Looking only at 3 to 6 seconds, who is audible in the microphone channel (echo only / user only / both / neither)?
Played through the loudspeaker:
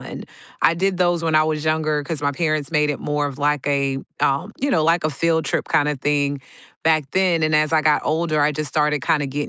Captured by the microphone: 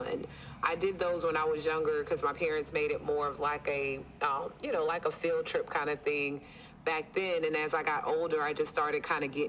echo only